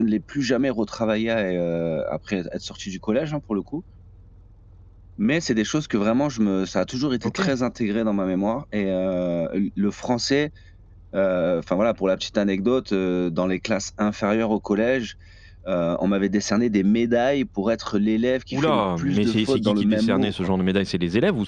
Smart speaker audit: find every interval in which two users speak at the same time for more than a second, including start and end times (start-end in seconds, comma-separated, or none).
18.5-20.3